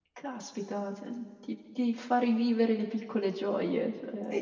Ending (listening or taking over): taking over